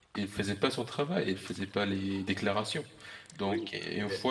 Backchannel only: Yes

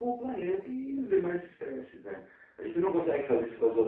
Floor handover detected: No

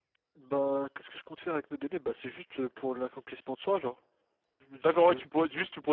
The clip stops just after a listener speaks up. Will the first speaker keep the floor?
No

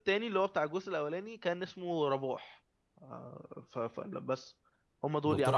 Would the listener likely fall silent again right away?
No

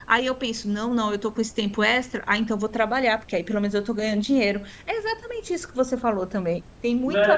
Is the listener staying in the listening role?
No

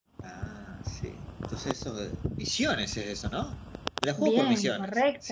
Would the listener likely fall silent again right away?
No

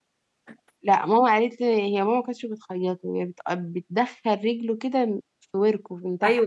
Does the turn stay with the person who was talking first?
No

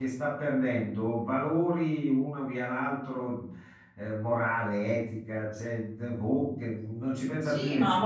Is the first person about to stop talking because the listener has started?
Yes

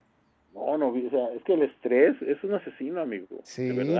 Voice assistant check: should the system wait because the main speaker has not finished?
No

